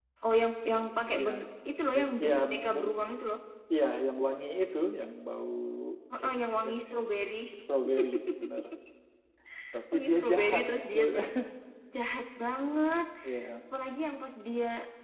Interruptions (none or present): present